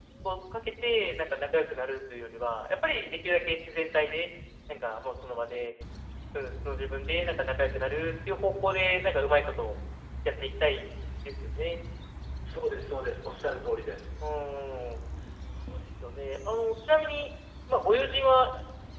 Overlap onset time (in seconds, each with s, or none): none